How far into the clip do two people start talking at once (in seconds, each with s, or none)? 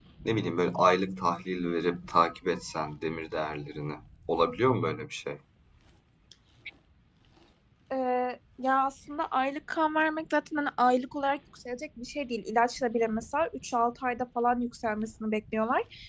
none